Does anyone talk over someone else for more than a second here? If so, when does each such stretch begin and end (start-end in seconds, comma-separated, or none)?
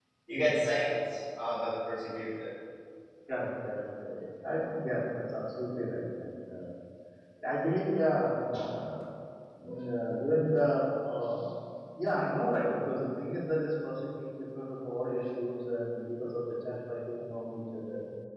none